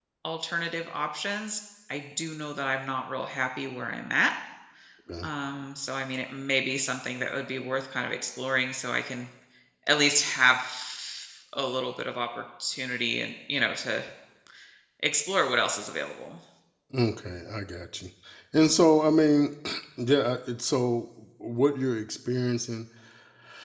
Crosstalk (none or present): none